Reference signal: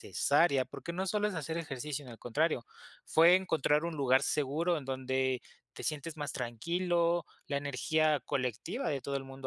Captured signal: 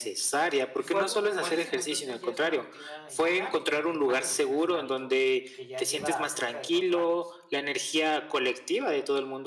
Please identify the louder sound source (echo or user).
echo